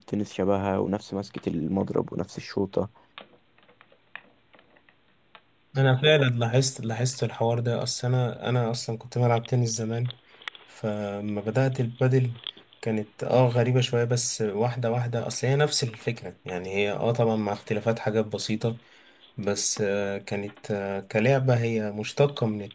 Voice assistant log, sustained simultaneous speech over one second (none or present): none